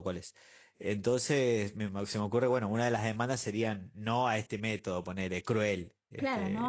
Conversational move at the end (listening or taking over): taking over